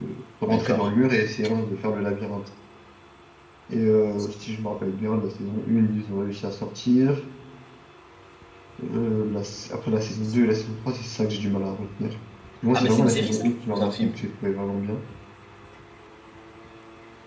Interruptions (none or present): present